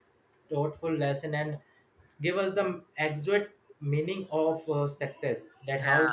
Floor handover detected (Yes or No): Yes